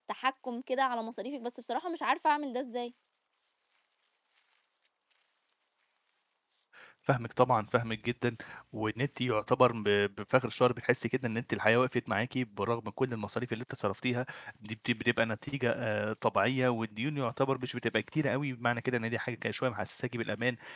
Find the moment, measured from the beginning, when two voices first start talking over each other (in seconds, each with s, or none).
none